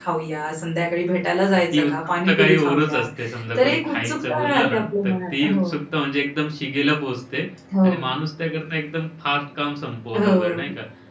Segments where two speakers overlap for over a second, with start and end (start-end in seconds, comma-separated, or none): 1.7-3.0, 3.6-5.8